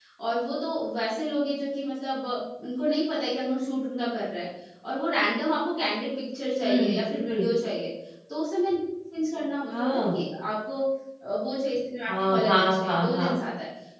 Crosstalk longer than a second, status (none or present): present